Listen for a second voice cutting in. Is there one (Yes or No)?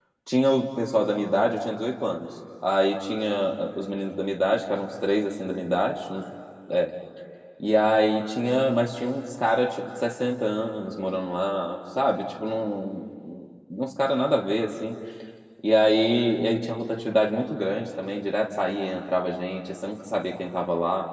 No